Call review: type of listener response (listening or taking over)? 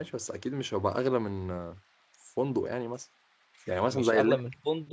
taking over